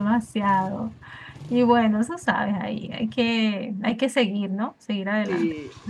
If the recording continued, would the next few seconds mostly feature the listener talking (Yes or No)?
Yes